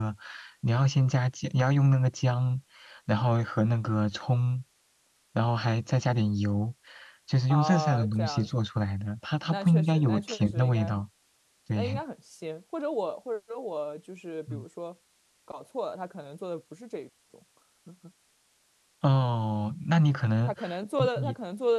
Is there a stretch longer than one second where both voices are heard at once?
Yes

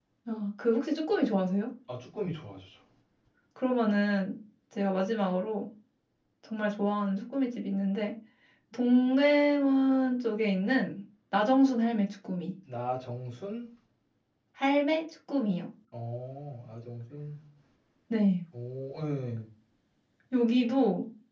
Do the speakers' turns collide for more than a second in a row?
No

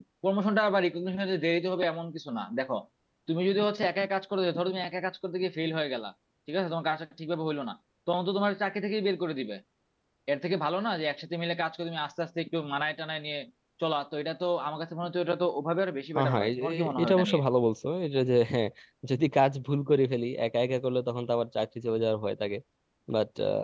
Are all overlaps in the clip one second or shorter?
No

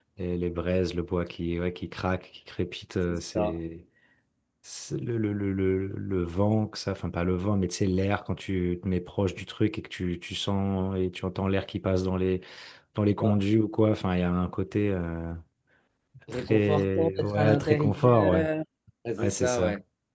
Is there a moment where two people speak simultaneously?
Yes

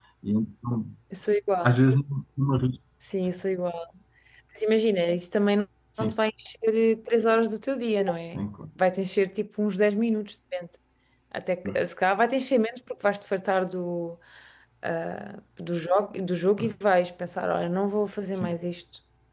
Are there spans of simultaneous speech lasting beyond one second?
No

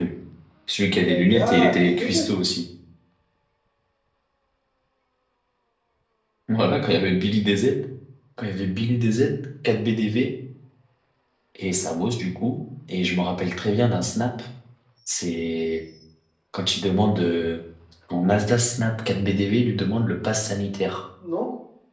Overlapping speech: Yes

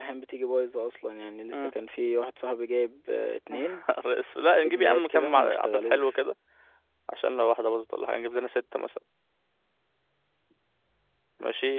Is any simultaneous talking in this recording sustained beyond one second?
Yes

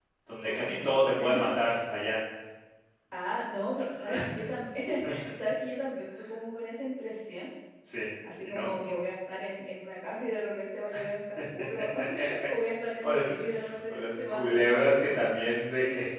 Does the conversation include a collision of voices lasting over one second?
Yes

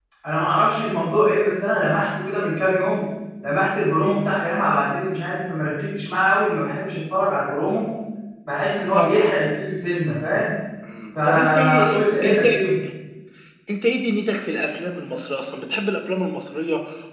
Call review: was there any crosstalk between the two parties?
Yes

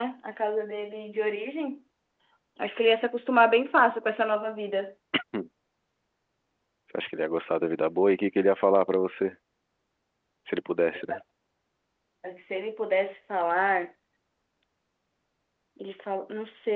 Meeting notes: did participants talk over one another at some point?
No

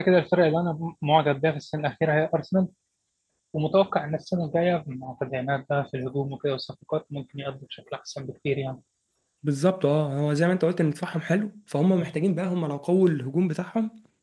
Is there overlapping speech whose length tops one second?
No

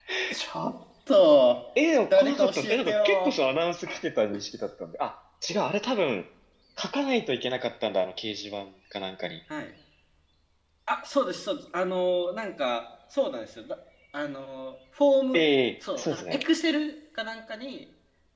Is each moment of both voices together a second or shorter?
No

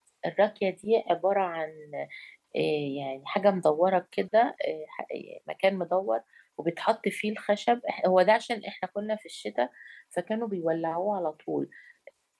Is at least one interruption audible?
No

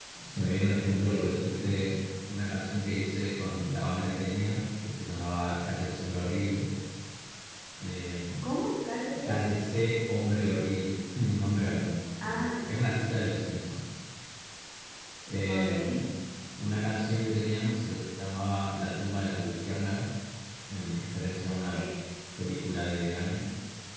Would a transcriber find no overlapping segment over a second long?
Yes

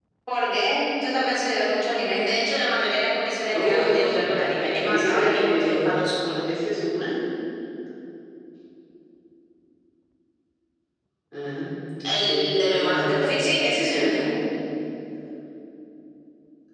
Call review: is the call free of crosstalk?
No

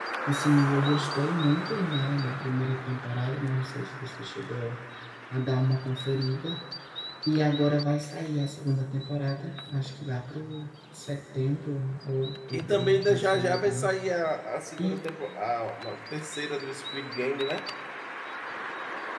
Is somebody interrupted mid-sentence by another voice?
Yes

